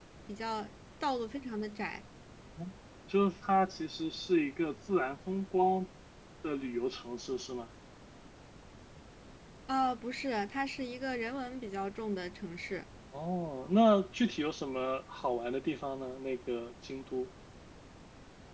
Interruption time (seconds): none

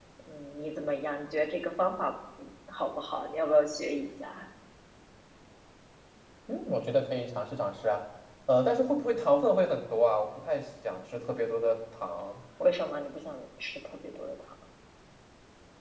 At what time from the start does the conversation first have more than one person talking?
none

